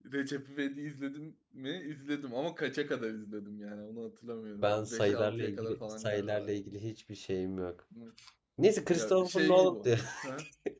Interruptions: present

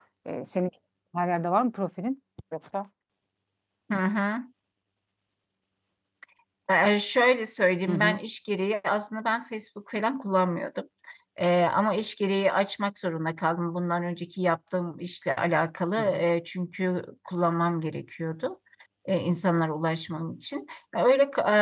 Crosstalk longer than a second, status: none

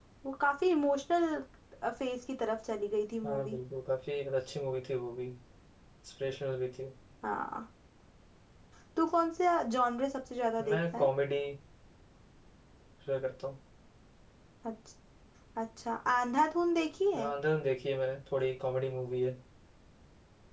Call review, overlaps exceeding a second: none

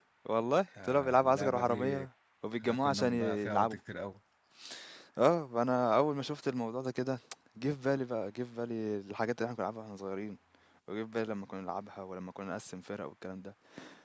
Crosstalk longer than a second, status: present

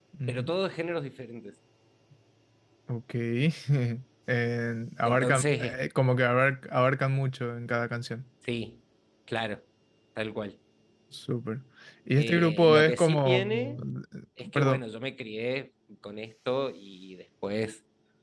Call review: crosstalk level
present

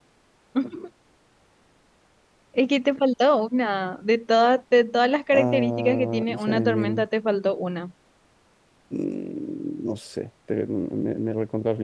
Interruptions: present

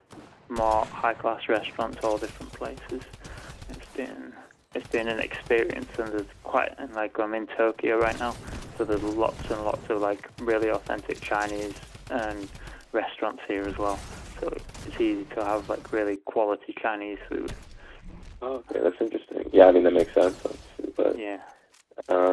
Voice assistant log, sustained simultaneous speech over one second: none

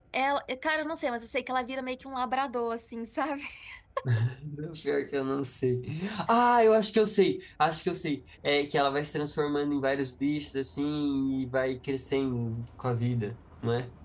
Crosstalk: none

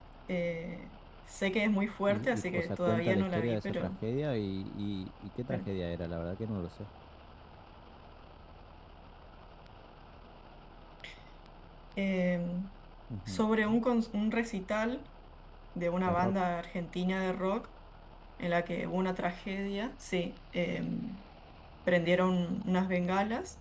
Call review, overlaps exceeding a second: present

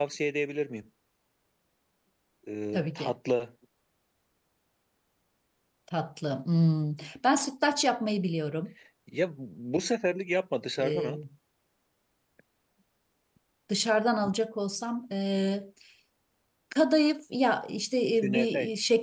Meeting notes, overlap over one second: none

